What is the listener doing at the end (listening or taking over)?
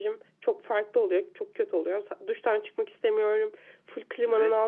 listening